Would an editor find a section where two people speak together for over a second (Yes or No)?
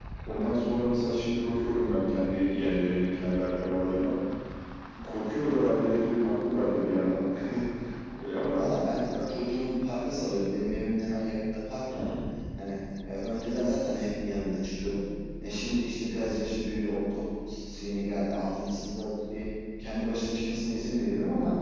No